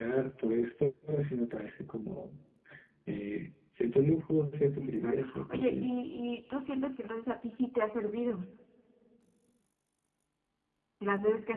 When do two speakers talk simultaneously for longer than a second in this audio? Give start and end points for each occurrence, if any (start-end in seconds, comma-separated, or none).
4.8-6.0